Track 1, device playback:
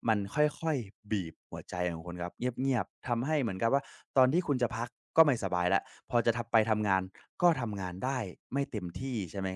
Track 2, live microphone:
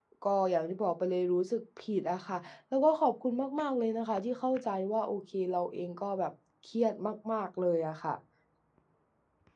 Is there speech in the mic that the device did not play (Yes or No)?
Yes